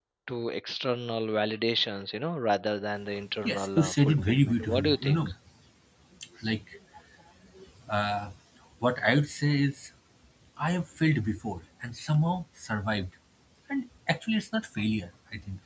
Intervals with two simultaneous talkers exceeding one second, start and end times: 3.5-5.3

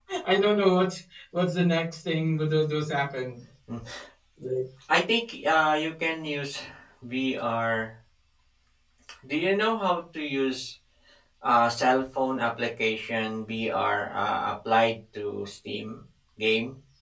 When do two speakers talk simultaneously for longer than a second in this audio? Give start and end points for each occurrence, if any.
none

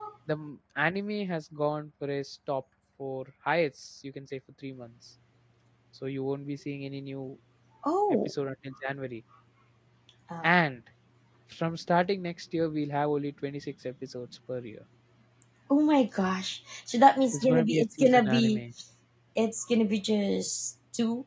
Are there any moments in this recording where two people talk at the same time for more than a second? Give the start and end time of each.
17.3-18.6

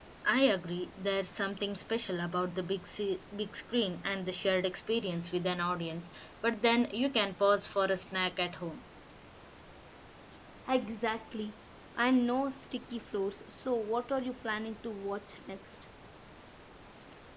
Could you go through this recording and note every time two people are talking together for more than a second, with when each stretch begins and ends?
none

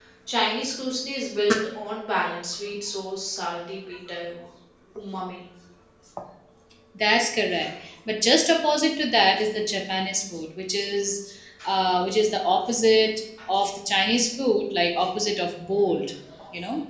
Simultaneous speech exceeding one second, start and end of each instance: none

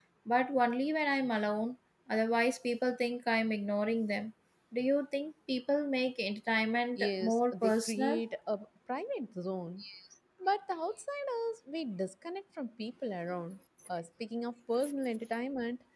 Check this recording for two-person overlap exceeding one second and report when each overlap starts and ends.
7.0-8.2

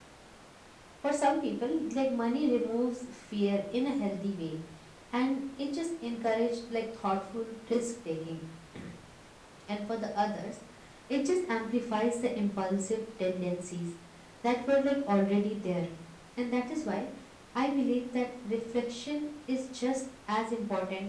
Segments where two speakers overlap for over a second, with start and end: none

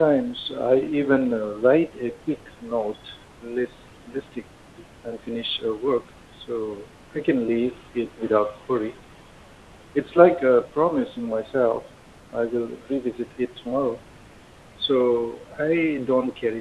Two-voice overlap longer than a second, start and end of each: none

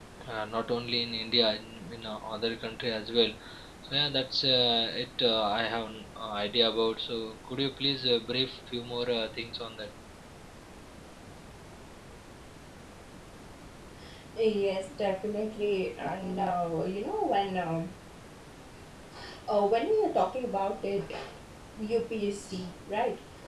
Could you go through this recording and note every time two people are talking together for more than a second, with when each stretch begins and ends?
none

